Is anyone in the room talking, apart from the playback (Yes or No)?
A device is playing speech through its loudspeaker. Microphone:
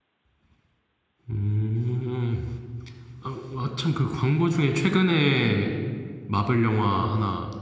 Yes